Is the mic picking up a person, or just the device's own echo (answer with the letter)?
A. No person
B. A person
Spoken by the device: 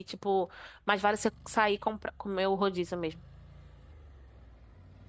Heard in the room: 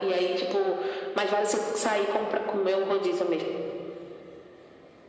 A